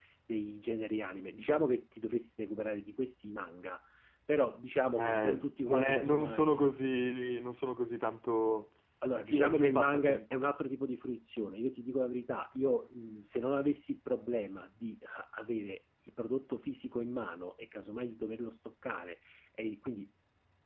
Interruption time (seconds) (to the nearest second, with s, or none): 5 s